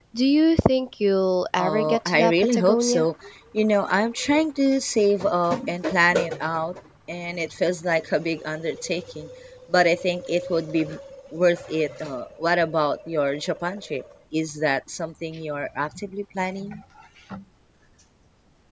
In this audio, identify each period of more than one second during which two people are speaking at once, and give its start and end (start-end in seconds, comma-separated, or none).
1.6-3.1